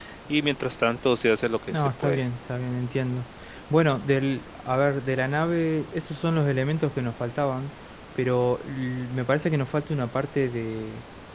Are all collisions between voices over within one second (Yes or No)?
Yes